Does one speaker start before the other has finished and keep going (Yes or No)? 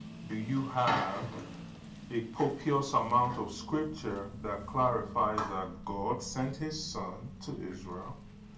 No